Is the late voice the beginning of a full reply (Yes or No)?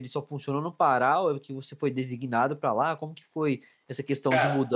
No